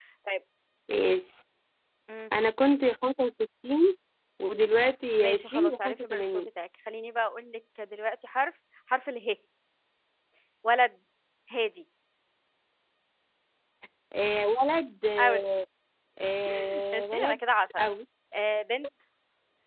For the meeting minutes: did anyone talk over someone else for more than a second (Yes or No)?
Yes